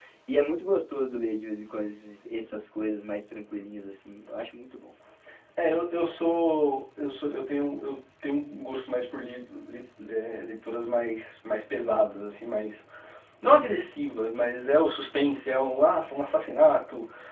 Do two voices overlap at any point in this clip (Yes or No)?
No